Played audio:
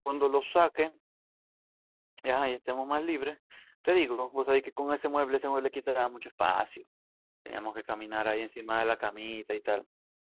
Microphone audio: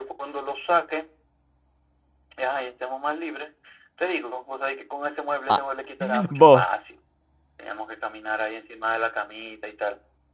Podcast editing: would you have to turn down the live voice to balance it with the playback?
Yes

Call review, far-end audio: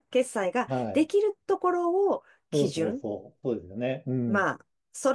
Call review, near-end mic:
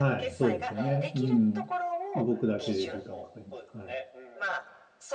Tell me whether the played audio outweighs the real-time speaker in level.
No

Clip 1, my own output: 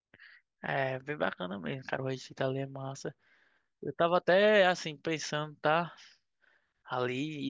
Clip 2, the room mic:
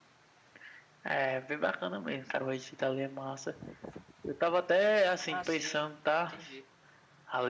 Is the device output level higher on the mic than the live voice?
Yes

